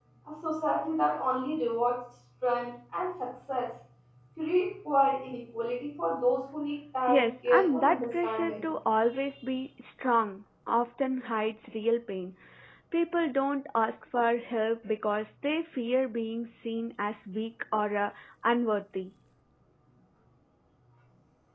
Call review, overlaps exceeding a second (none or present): present